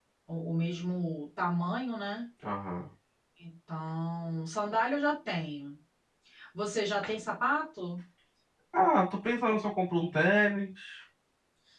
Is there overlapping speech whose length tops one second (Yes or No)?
No